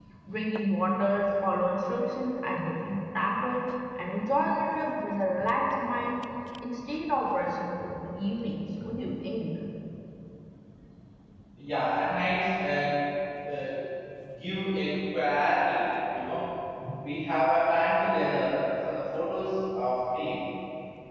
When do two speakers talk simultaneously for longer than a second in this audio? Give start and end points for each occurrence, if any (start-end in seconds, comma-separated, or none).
none